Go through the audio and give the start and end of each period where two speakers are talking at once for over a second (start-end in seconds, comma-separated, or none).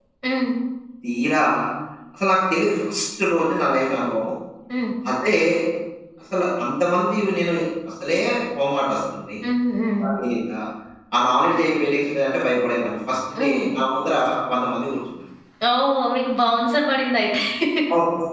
none